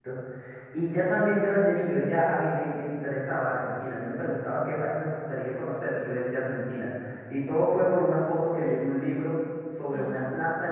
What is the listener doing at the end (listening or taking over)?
listening